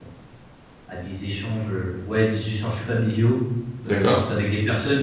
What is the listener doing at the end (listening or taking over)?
listening